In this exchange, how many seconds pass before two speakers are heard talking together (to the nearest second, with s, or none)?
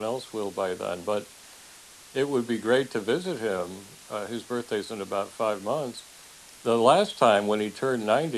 none